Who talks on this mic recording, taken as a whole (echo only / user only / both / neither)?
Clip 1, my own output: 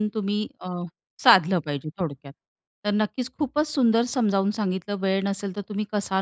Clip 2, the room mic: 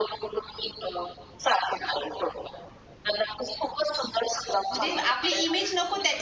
both